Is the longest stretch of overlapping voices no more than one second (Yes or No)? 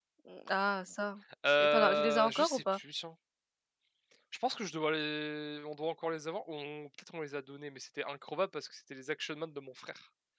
No